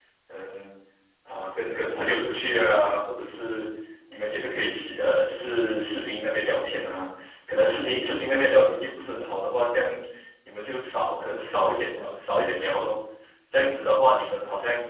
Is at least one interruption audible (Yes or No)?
No